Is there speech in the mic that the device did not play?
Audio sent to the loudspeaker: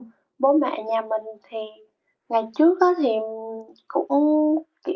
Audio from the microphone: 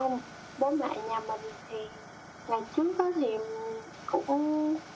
No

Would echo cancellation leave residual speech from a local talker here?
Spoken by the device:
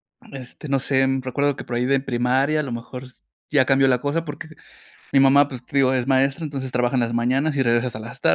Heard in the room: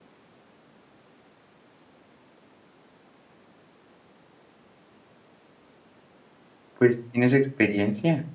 Yes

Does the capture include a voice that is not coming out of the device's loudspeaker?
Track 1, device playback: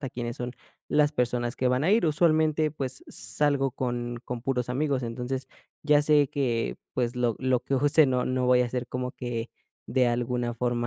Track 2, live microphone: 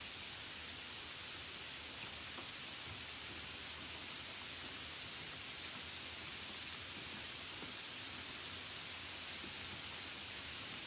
No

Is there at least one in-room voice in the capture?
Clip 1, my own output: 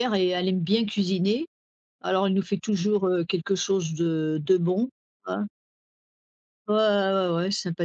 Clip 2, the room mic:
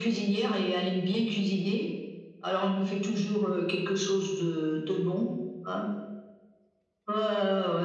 No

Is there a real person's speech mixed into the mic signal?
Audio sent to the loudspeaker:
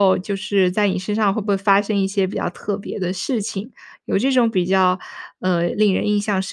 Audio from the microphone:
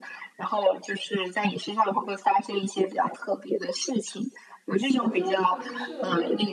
Yes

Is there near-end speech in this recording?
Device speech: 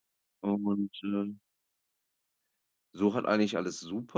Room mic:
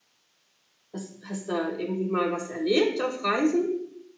Yes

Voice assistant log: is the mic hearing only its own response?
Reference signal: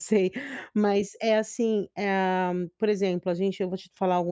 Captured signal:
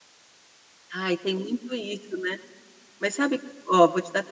No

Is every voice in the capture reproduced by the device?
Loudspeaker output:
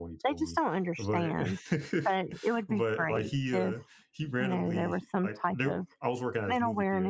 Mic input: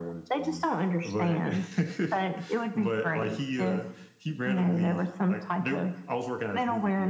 Yes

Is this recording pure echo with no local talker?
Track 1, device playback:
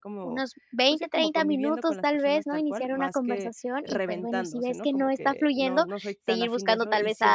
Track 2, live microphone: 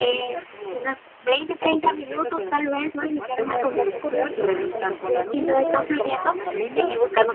No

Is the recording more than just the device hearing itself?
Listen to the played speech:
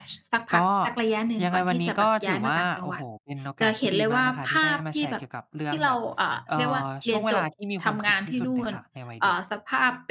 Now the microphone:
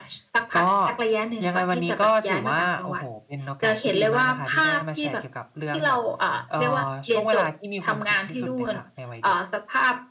No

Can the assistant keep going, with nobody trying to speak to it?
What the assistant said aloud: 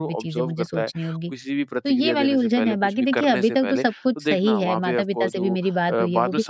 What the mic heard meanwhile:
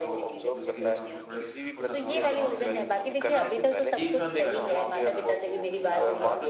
No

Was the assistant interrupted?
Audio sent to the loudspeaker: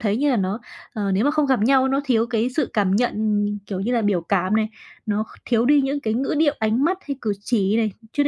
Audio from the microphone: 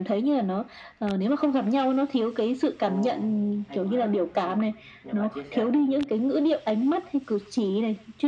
Yes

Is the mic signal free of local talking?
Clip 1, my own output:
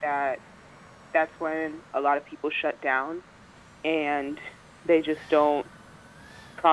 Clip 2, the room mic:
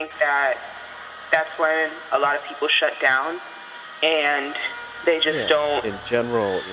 No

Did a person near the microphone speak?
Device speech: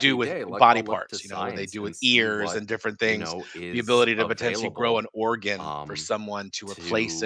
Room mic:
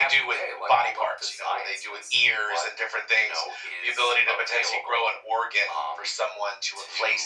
No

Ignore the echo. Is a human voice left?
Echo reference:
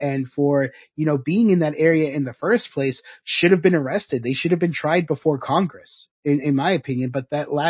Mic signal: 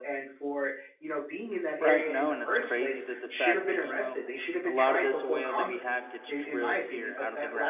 Yes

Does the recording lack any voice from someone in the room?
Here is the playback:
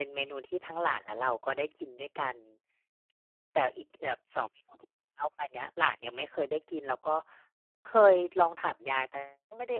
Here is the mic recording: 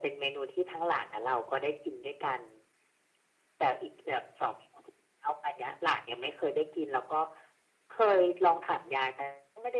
Yes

